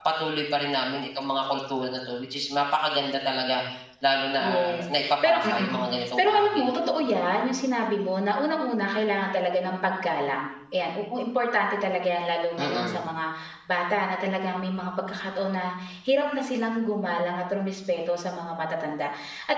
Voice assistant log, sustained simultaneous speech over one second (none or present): present